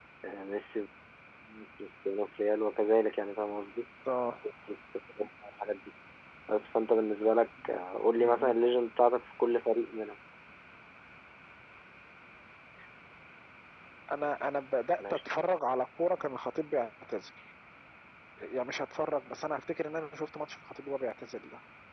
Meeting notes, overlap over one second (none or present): none